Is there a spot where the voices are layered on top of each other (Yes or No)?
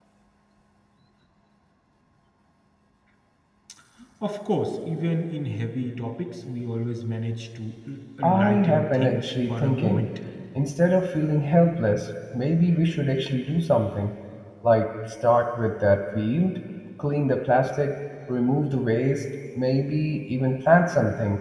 Yes